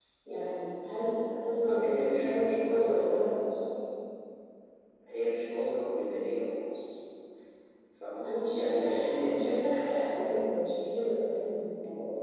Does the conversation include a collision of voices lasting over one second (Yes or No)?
Yes